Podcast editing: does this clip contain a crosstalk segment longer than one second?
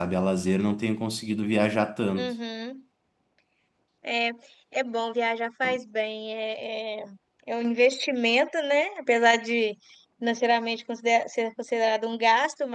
No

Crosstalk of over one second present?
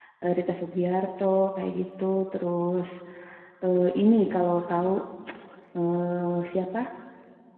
No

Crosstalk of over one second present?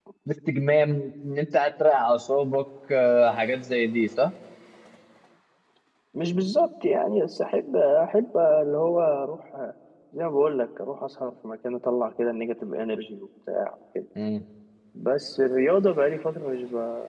No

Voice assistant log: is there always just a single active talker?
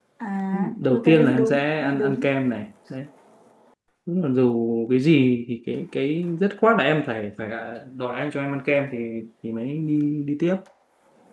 No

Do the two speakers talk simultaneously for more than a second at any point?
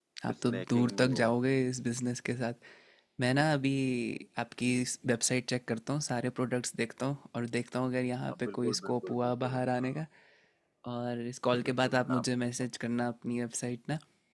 Yes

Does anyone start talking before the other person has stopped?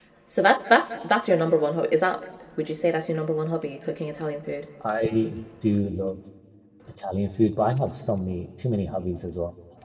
No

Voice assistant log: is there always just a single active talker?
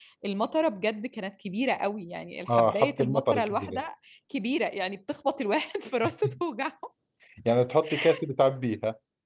No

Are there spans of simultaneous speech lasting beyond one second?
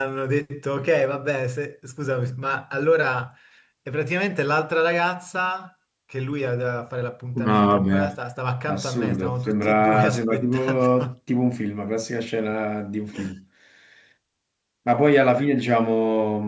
Yes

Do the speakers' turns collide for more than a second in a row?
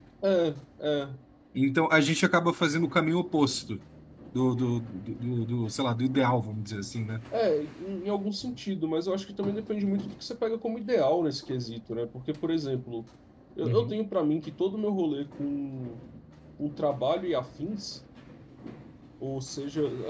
No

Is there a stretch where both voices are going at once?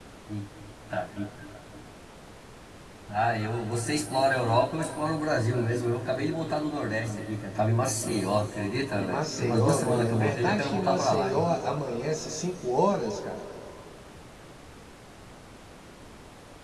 Yes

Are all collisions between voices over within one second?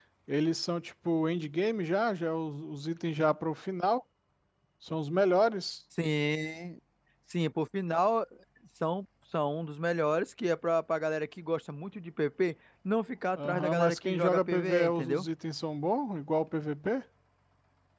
No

